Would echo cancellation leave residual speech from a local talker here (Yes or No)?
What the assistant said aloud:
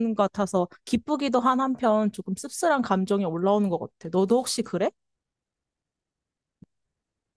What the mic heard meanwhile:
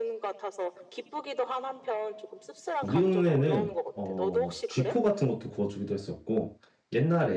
Yes